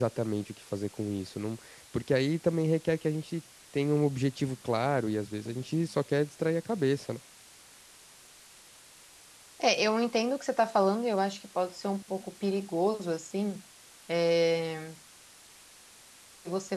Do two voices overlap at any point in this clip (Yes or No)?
No